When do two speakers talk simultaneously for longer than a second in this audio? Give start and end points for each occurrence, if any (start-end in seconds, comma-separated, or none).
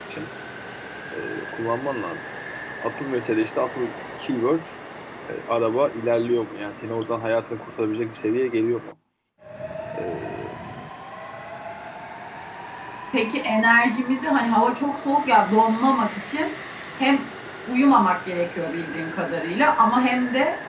none